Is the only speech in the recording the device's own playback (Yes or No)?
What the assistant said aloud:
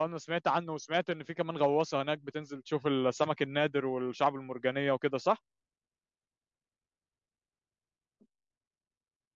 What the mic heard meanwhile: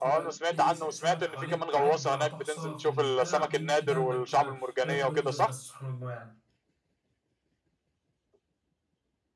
No